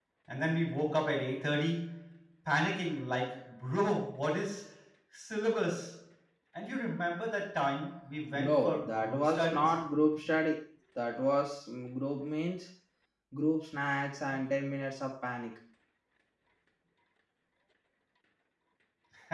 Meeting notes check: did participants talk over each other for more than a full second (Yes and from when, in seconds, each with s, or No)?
Yes, from 8.4 s